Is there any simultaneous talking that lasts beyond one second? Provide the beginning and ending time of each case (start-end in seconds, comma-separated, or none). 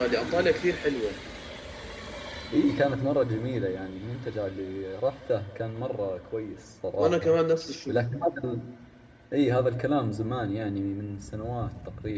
none